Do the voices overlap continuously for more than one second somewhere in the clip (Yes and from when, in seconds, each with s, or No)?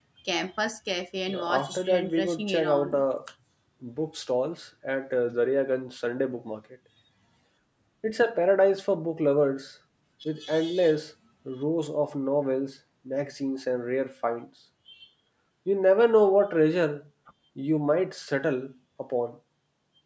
Yes, from 1.3 s